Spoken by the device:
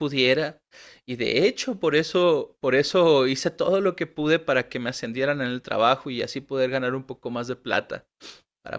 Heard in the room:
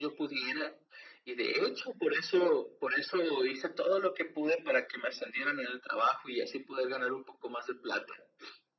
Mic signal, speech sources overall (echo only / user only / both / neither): echo only